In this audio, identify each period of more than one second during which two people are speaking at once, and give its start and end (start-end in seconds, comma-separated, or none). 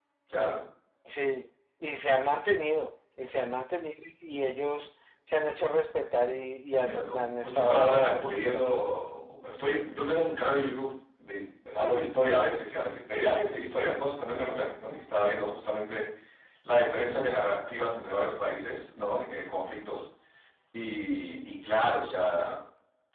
6.8-8.6